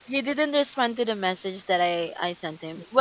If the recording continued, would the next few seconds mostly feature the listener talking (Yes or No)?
No